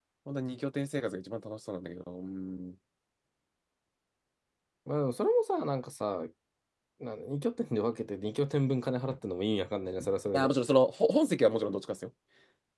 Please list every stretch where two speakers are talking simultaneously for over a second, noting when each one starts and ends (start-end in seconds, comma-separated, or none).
none